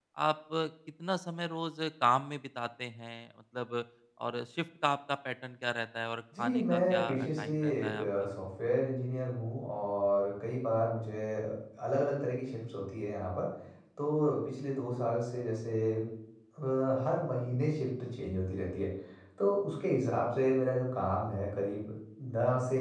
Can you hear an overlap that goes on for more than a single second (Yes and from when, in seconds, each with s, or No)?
Yes, from 6.3 s